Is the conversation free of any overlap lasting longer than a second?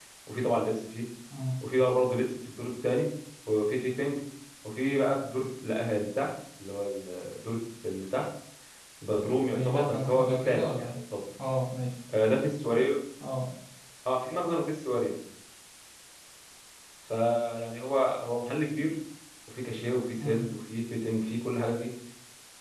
No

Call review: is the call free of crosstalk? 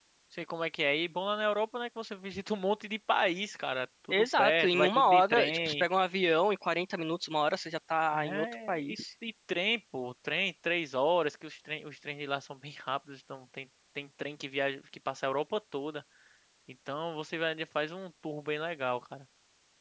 No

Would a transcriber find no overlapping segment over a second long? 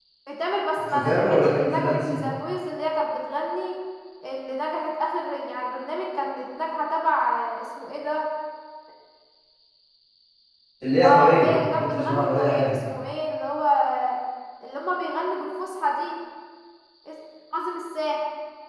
No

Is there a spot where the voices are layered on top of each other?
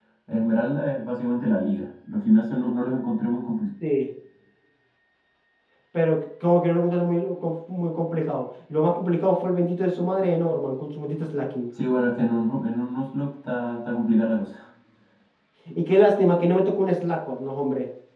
No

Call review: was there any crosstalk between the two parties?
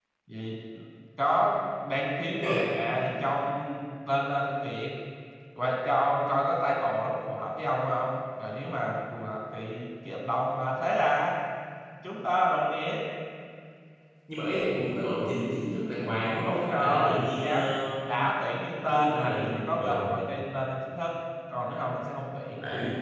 Yes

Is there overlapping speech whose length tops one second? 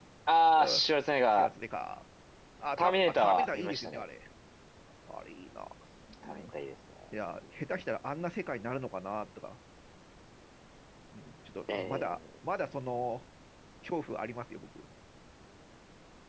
Yes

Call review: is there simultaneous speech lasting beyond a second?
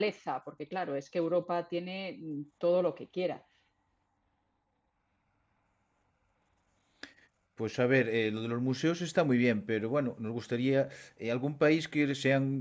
No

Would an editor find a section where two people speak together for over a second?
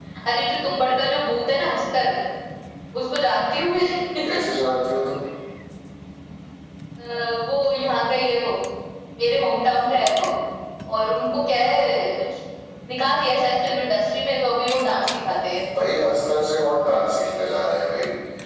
No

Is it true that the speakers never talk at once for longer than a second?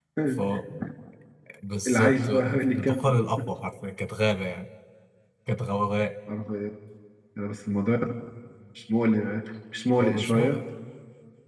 No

